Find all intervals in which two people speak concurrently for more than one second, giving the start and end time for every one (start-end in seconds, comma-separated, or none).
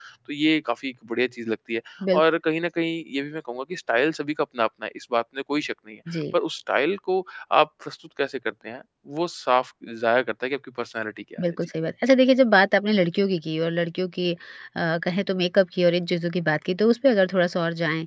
none